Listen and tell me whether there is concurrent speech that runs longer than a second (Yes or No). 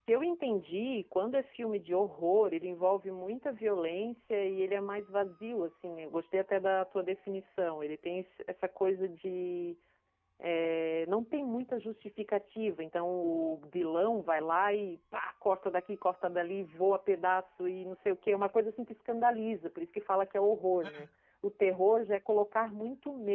No